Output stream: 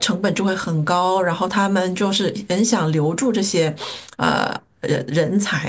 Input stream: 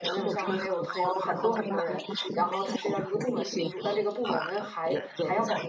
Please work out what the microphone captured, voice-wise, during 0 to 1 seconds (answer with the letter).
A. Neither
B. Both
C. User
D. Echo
B